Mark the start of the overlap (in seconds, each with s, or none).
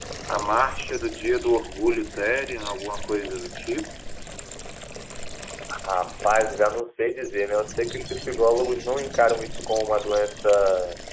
none